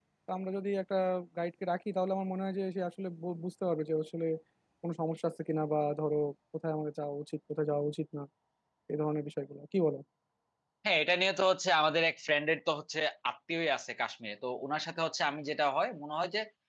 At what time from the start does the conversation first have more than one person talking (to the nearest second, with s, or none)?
none